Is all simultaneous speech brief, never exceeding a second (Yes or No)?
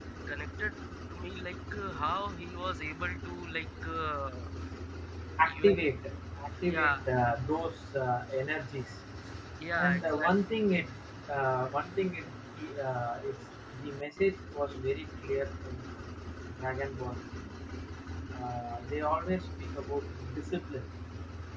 Yes